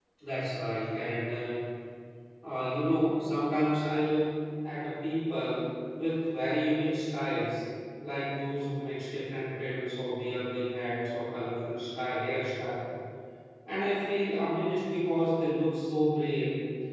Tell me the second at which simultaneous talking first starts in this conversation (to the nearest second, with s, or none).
none